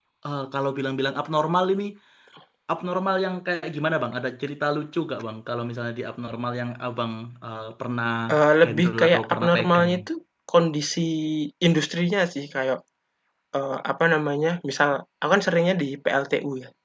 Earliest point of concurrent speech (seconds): 8.6 s

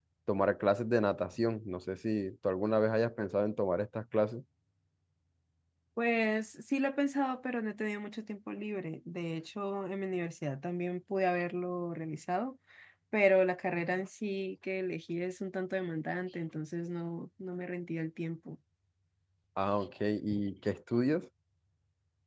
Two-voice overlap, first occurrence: none

